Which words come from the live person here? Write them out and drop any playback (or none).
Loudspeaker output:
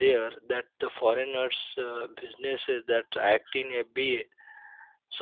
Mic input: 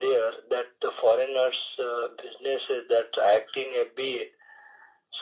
none